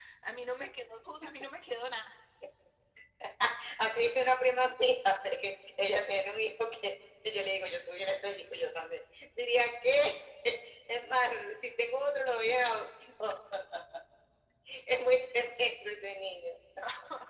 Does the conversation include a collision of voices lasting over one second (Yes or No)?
No